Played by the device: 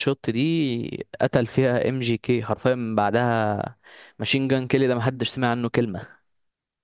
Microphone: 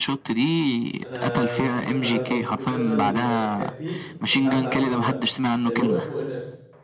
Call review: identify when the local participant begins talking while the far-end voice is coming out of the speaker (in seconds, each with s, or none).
1.0 s